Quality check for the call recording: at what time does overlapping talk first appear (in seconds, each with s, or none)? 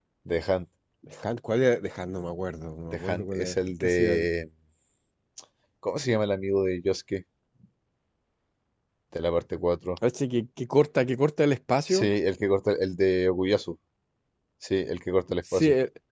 2.9 s